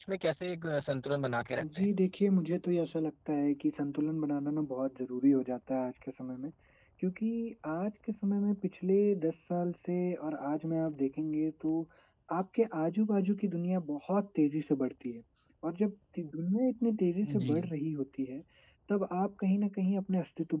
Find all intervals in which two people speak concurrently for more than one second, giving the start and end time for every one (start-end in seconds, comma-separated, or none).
none